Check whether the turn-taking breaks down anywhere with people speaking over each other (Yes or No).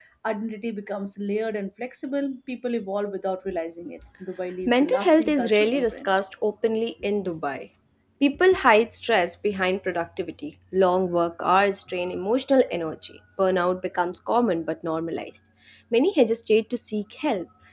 Yes